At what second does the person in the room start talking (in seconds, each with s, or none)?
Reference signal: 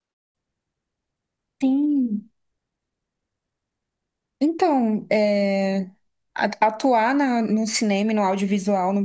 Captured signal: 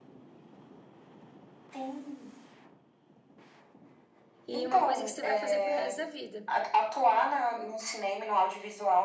4.5 s